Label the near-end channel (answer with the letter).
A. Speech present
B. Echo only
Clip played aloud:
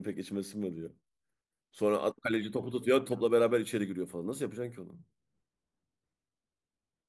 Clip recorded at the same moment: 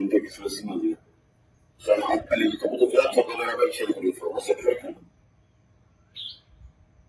B